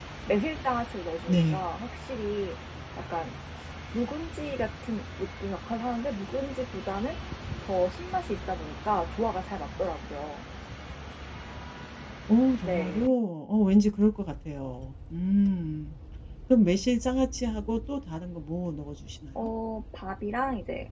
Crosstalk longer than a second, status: none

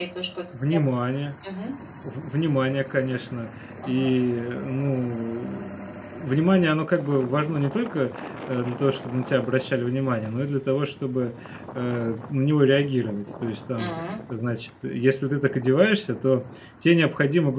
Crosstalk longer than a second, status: none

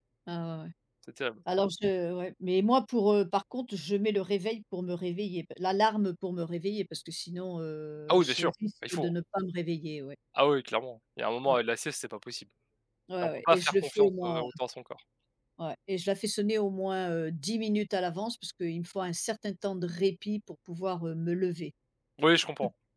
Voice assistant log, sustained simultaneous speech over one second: present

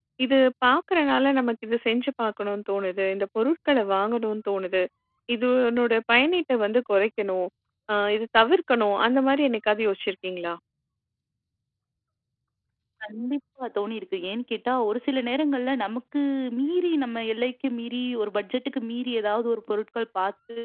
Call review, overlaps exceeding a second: none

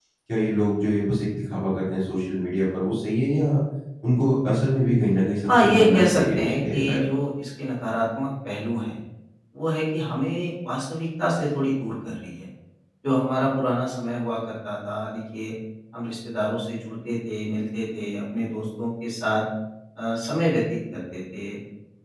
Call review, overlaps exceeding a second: present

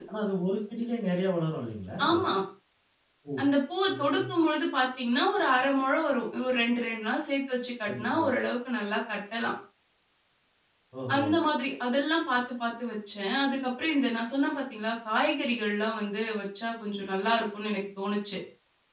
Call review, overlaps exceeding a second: none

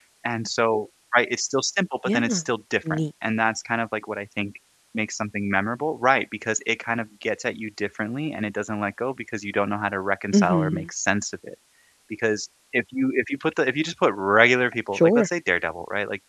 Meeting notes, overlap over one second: none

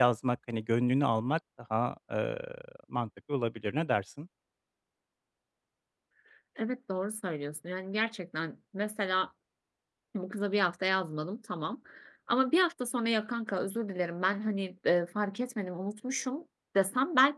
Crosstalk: none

